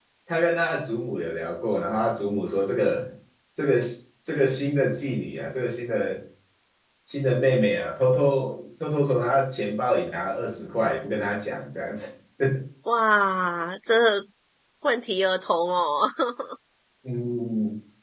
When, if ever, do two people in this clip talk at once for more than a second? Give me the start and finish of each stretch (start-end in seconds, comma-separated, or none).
none